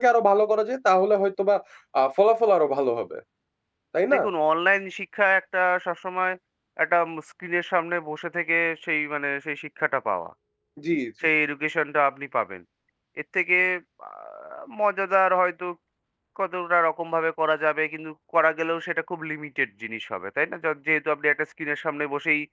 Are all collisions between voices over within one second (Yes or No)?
Yes